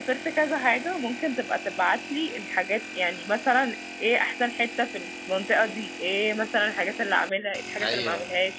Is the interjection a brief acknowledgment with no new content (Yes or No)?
Yes